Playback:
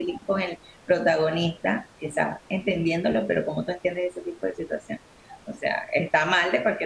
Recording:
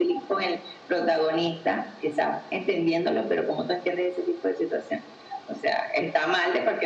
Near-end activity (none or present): none